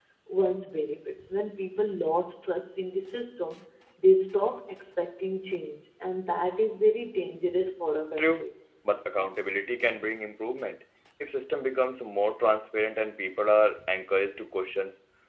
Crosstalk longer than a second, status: none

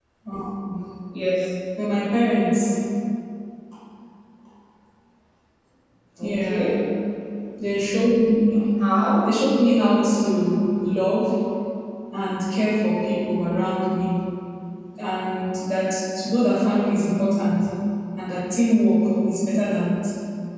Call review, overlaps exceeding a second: none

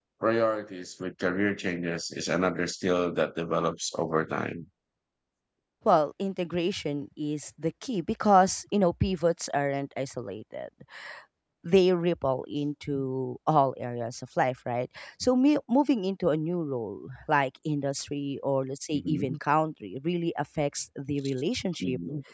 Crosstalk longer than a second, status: none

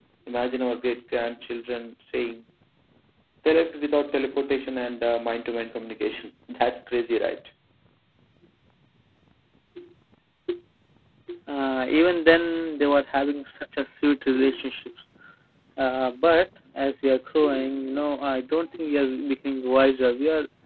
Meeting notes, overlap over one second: none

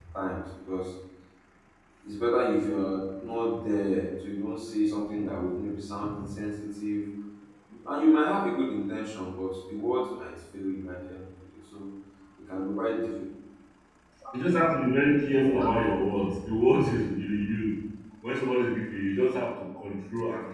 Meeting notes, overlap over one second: none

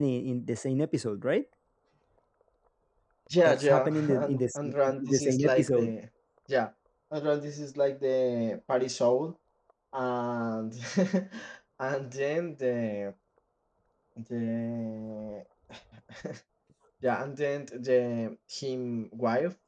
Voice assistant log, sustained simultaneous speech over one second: present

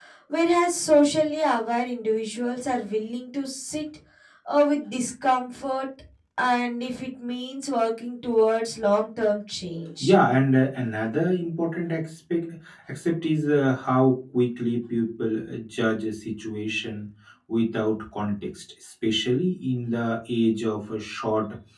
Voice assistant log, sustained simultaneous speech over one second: none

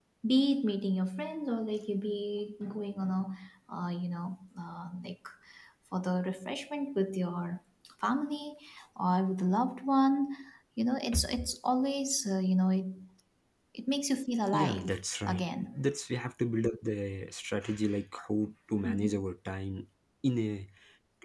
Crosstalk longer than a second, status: present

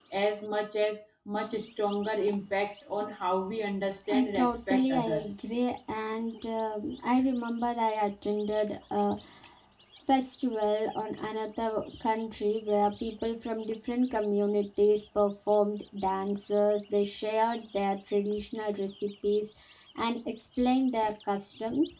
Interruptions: present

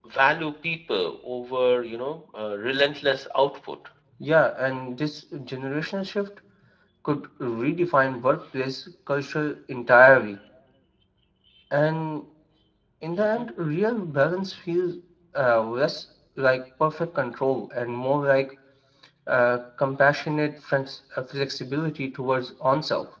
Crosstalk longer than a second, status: none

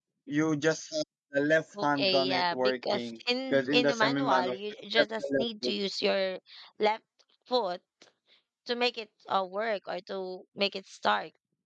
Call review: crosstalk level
present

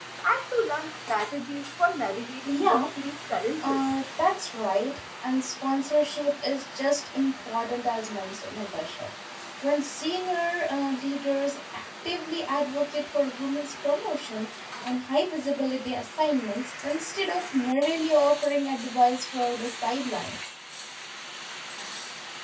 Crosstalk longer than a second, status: none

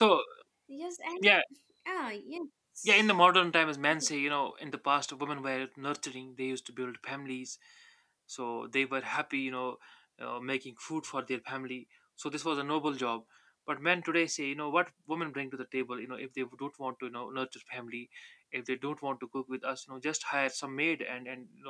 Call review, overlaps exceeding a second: none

